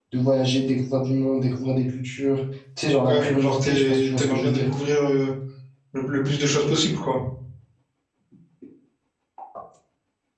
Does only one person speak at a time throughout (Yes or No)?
No